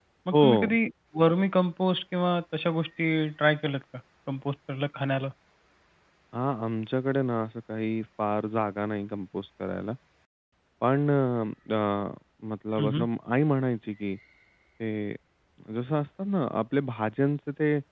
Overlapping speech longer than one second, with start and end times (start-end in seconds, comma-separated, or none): none